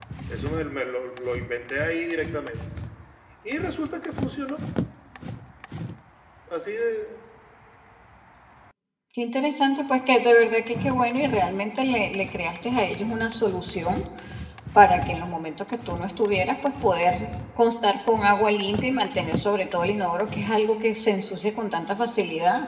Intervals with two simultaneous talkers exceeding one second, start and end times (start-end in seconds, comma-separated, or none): none